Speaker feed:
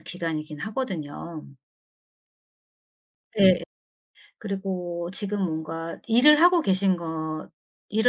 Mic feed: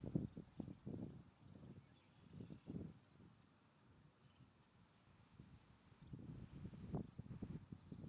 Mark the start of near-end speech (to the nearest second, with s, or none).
none